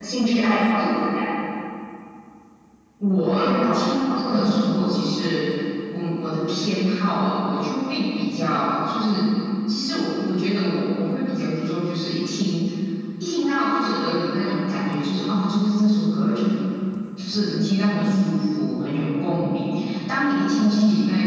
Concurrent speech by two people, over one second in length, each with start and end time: 3.4-4.6

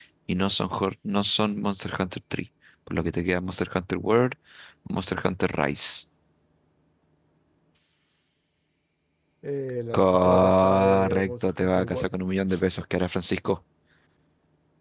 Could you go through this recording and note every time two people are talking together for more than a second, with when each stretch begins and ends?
10.0-12.1

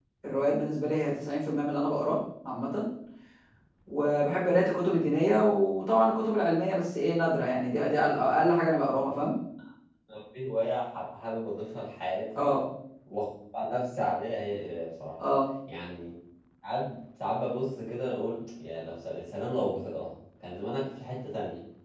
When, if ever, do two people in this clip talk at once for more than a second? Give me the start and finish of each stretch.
none

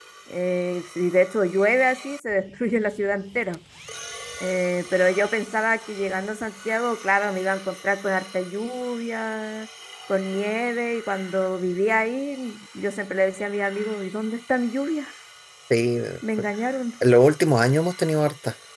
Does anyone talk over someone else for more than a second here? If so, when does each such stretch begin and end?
none

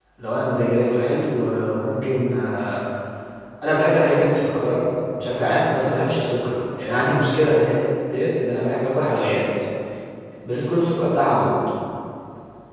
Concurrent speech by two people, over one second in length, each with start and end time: none

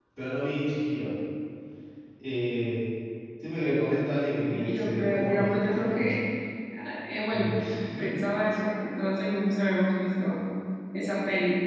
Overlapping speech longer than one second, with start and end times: 4.5-6.2

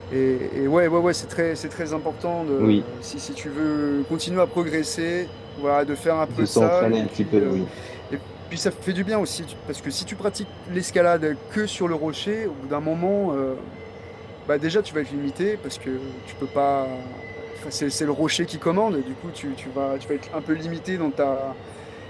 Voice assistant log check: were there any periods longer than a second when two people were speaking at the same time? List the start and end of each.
6.2-7.6

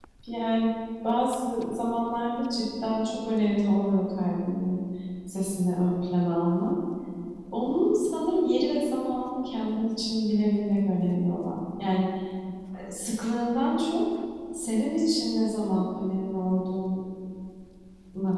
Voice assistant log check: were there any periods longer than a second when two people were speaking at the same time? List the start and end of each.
none

